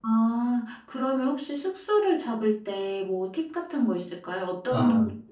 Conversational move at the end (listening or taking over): taking over